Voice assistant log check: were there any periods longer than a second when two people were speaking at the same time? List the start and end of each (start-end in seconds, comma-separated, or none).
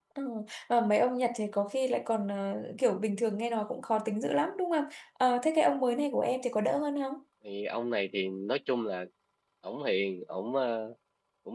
none